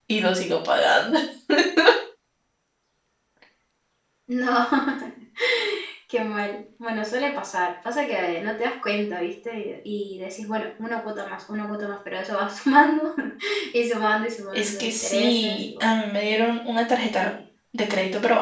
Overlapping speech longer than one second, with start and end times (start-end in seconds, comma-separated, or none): 14.5-15.9